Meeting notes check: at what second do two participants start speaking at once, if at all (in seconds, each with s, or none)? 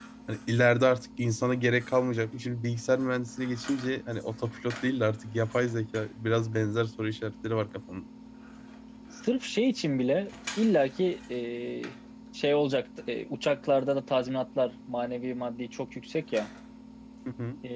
none